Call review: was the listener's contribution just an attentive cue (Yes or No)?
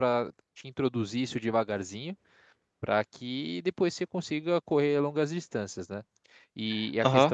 Yes